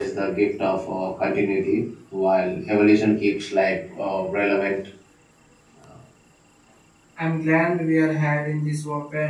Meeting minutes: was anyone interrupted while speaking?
No

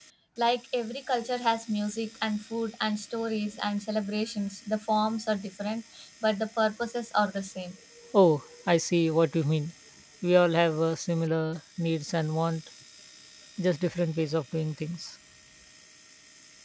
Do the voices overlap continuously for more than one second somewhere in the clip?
No

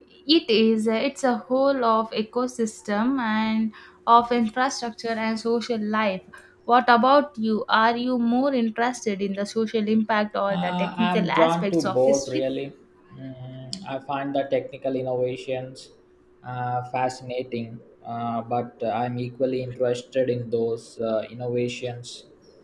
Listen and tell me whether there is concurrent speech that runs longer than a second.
Yes, from 10.5 s

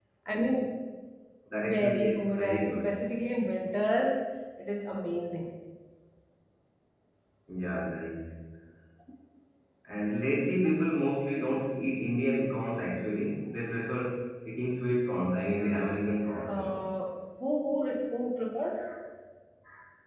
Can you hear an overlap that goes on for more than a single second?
Yes, from 1.7 s

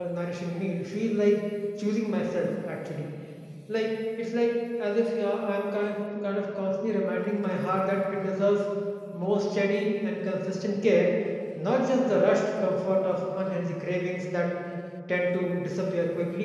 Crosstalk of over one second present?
No

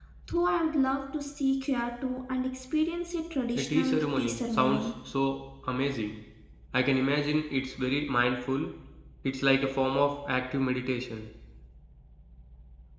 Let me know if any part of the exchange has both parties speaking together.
Yes, from 3.5 s

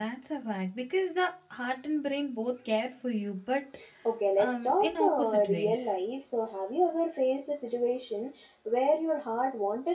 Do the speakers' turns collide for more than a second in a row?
Yes, from 4.4 s

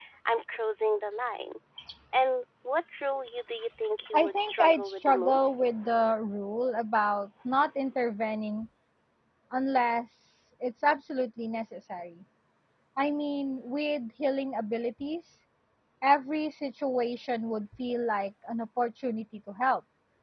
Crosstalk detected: Yes, from 4.0 s

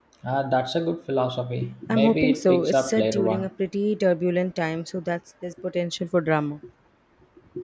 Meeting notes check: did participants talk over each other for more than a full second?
Yes, from 1.9 s

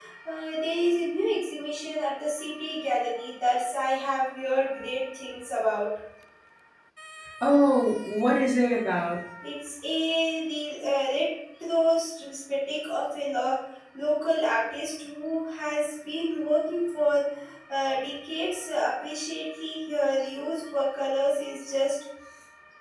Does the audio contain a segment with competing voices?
No

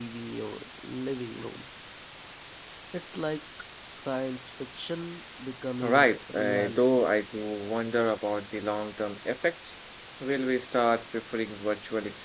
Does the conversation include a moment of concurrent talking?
Yes, from 5.8 s

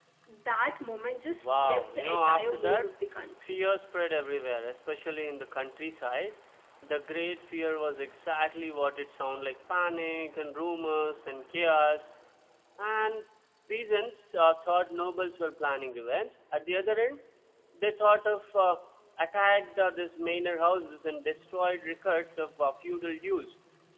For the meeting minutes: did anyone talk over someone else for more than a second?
Yes, from 1.3 s

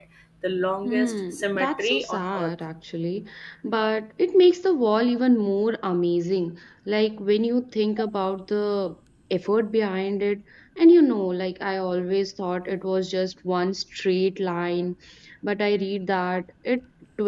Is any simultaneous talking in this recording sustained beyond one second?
Yes, from 0.8 s

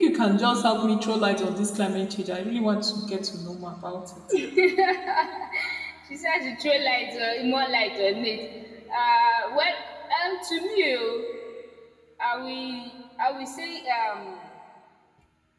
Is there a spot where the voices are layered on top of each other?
No

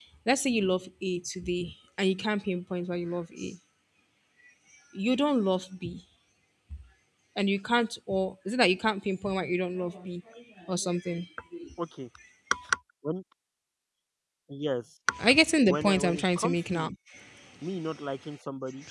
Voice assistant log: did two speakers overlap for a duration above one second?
Yes, from 15.7 s

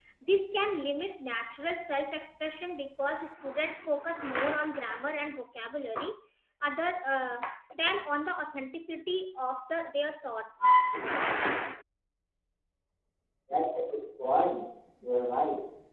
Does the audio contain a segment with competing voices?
No

